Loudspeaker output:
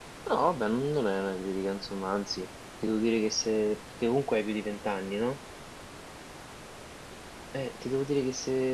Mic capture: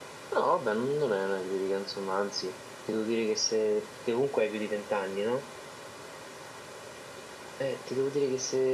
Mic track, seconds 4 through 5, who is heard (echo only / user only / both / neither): echo only